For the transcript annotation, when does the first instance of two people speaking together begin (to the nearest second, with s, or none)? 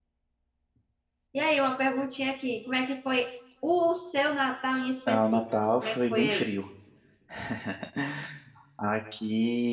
5 s